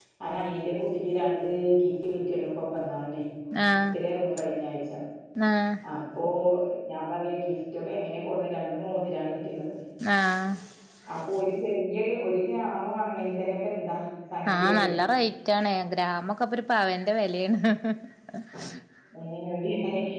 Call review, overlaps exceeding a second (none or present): none